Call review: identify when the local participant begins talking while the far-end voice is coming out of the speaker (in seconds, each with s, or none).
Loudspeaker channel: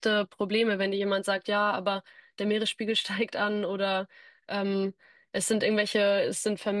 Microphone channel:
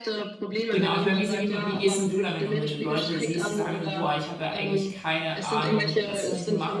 0.7 s